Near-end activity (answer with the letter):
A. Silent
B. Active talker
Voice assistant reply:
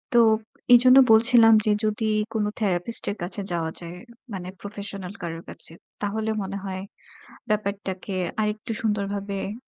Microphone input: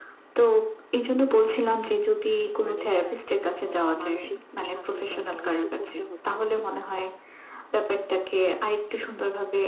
B